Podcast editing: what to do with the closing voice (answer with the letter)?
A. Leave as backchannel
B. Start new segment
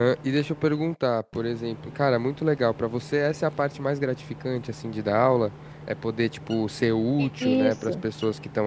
A